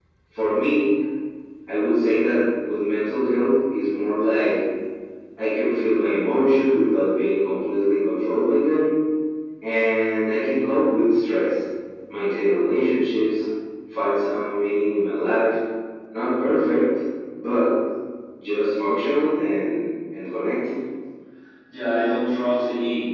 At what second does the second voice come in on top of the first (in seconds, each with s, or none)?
none